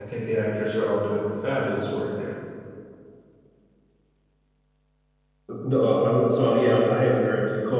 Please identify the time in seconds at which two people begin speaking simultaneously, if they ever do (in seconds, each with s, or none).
none